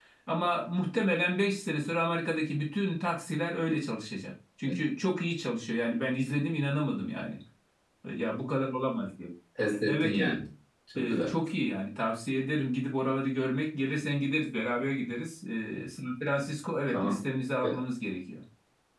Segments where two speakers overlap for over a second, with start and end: none

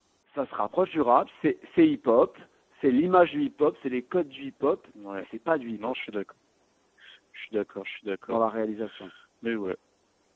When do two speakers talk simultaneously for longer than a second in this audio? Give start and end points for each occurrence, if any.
none

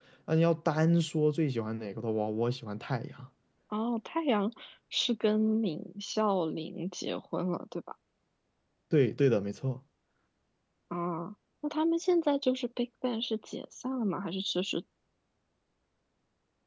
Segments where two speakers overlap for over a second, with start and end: none

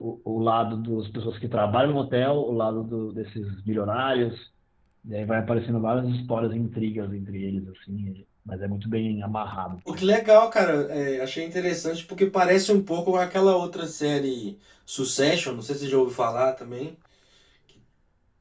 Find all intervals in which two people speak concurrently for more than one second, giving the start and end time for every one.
none

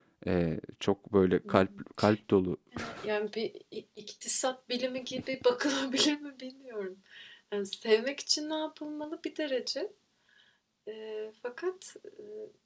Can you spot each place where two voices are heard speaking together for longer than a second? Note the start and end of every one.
none

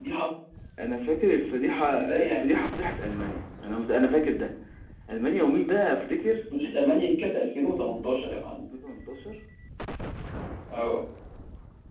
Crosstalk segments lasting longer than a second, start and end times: none

